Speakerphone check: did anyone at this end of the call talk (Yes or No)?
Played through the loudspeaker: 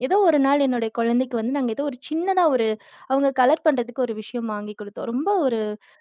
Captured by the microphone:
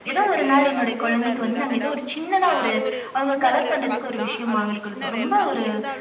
Yes